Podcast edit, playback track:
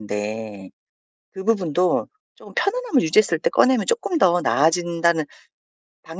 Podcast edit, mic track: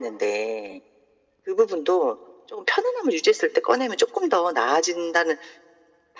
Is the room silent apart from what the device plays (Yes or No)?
Yes